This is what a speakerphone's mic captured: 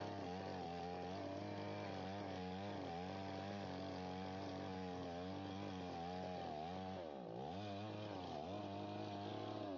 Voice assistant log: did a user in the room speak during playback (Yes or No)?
No